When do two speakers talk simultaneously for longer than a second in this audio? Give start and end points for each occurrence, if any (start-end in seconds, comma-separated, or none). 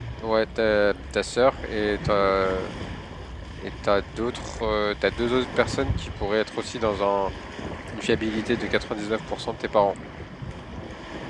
none